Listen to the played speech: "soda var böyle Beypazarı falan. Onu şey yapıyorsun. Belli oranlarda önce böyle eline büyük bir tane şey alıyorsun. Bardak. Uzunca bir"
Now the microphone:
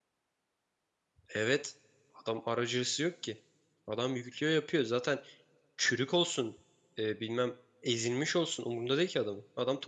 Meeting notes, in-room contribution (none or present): present